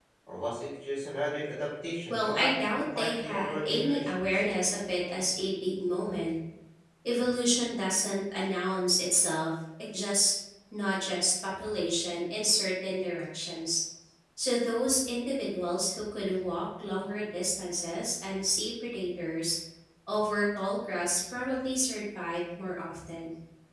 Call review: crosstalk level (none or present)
present